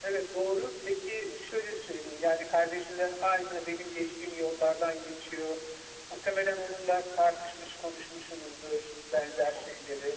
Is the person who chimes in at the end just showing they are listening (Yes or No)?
Yes